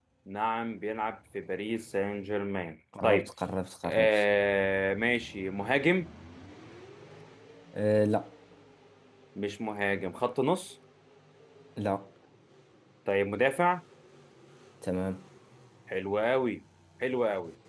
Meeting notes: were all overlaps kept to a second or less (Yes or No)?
Yes